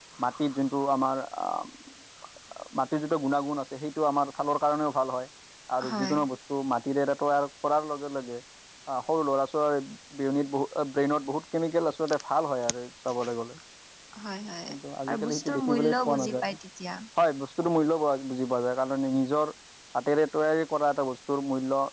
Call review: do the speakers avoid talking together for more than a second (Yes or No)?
No